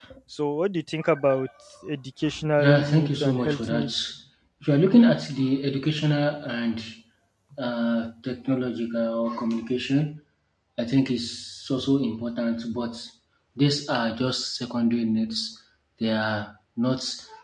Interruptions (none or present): present